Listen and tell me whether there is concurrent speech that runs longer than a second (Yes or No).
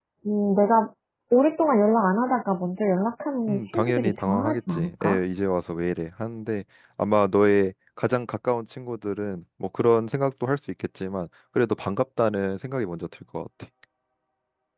Yes